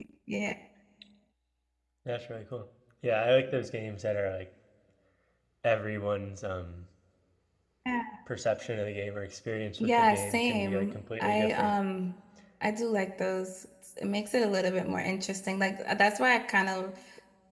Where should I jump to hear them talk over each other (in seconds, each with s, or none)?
9.8 s